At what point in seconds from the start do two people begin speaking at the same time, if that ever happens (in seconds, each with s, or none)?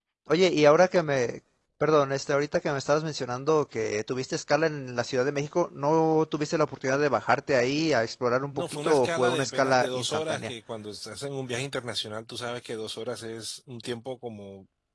8.5 s